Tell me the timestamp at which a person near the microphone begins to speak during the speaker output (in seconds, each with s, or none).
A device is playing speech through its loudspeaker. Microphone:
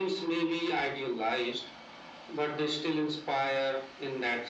none